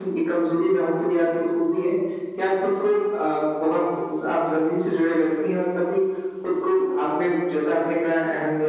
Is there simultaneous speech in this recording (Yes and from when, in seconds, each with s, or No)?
No